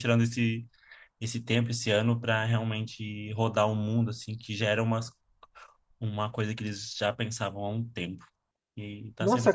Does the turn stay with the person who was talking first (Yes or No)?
No